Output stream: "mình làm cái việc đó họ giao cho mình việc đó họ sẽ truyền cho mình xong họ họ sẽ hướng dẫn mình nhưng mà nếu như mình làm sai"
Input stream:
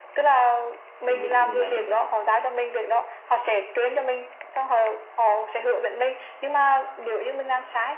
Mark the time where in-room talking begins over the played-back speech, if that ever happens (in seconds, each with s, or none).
1.0 s